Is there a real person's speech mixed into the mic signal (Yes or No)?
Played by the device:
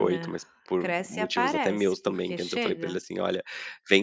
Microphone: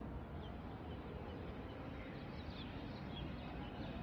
No